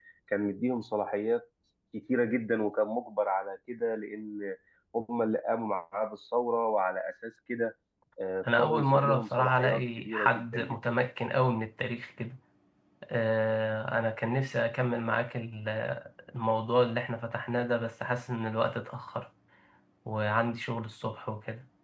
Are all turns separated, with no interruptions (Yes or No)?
No